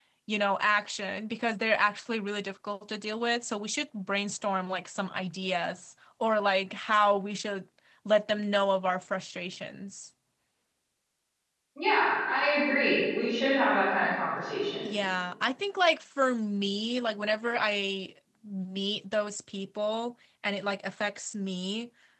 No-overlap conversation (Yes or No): Yes